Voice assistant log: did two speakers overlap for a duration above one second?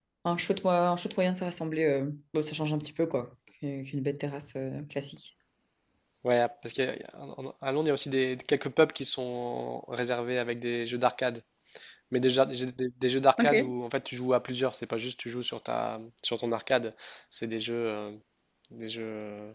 No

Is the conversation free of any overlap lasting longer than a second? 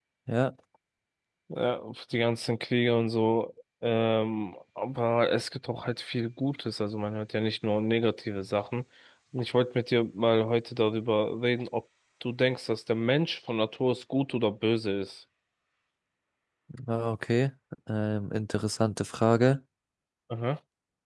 Yes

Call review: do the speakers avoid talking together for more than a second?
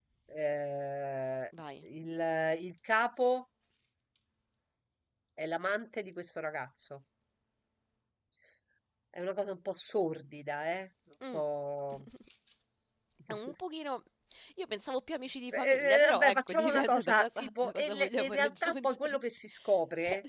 No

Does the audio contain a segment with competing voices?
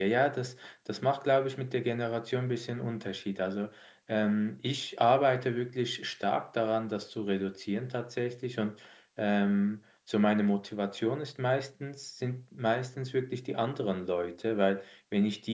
No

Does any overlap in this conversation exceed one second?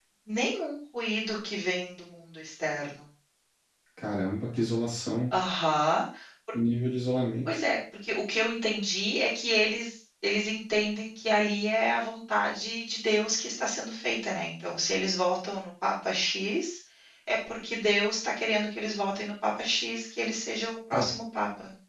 No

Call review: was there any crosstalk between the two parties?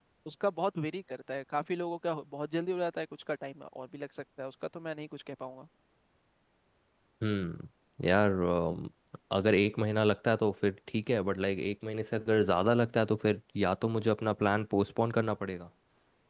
No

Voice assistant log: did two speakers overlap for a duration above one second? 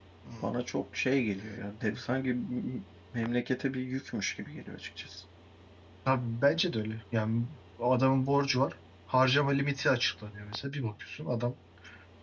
No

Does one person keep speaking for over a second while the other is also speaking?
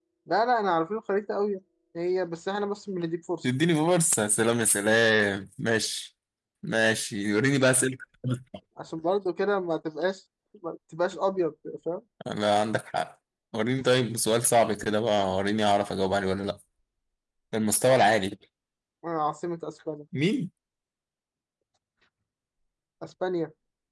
No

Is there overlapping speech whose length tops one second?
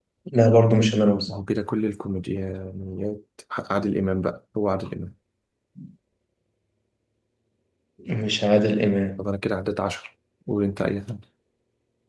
No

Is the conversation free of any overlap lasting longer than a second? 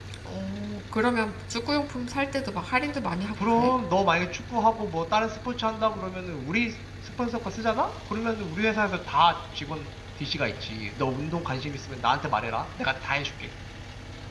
Yes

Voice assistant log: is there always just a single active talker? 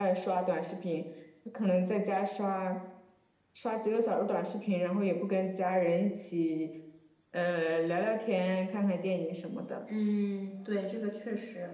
Yes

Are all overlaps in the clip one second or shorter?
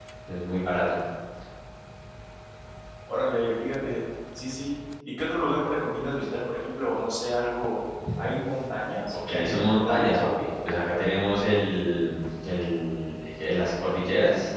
No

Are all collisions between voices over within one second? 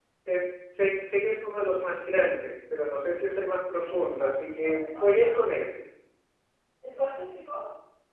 No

